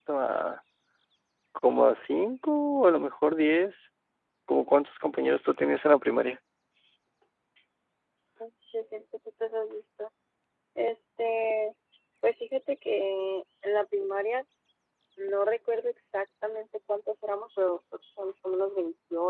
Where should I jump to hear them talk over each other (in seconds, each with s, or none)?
none